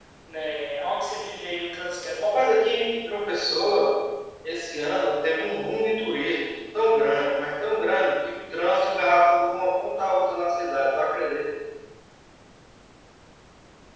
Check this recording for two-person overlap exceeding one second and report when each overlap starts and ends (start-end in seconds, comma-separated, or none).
none